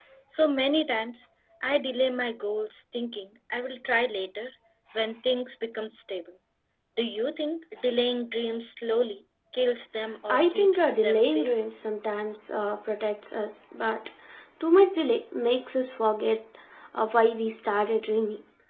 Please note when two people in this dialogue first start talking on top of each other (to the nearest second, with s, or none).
10 s